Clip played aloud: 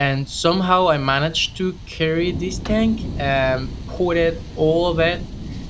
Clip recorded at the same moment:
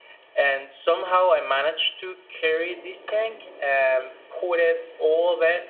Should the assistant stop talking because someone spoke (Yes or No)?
No